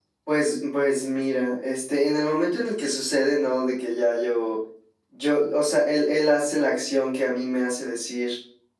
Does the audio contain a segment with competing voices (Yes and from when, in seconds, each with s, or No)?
No